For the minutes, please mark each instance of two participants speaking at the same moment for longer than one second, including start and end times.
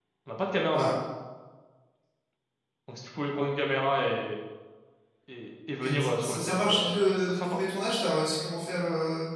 5.8-7.6

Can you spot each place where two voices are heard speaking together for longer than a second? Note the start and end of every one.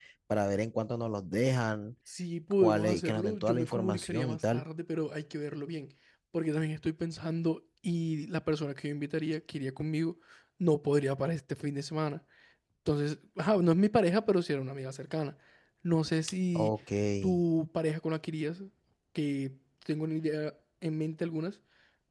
2.6-4.6

